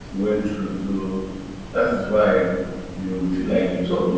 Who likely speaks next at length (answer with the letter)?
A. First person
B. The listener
A